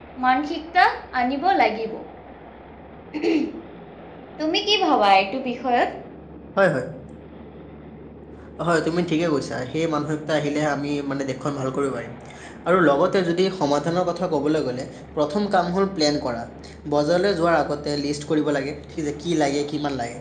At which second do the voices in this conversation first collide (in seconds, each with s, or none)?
none